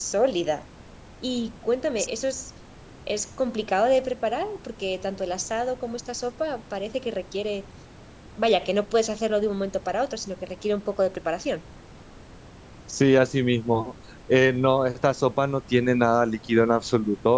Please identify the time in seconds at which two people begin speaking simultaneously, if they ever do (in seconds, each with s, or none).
none